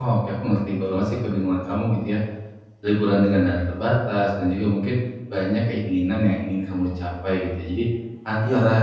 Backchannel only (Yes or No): Yes